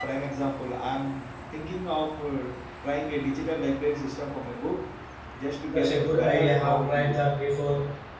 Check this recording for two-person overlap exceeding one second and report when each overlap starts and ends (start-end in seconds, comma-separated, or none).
5.7-7.2